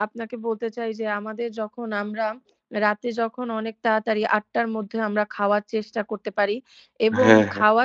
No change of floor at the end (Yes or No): Yes